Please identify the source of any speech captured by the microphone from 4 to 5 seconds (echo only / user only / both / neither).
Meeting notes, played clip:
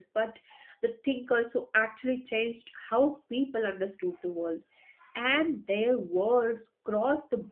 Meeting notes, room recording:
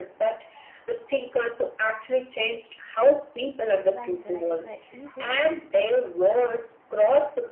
both